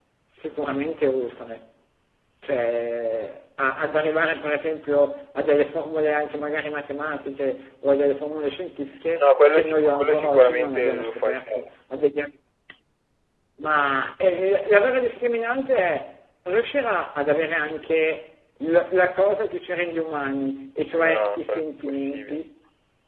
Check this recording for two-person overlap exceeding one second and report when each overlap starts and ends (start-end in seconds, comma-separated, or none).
9.2-11.5, 21.0-22.4